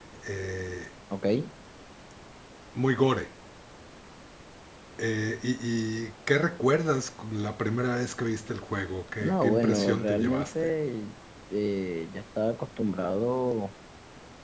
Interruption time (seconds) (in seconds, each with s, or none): 9.2 s